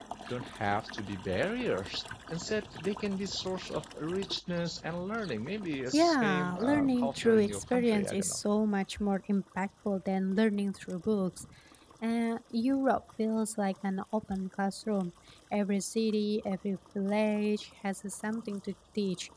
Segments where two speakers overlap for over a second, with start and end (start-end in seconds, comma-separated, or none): 5.9-8.4